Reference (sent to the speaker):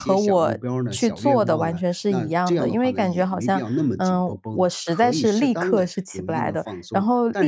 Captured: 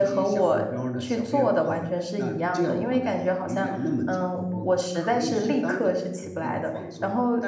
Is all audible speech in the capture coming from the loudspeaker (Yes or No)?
Yes